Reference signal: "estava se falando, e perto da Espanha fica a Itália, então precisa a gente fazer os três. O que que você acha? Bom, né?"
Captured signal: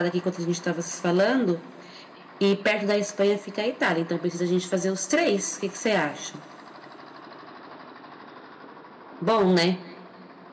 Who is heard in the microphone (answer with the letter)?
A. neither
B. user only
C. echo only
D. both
C